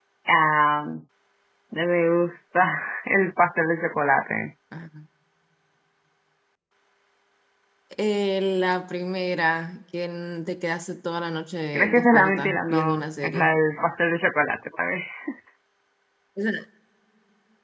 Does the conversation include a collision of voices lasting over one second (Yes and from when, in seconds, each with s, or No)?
Yes, from 11.7 s